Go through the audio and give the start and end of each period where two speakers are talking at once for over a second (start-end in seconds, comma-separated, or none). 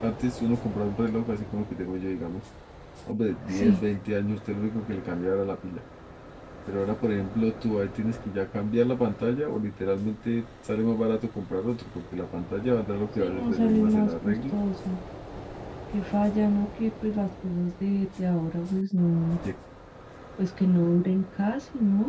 13.2-14.6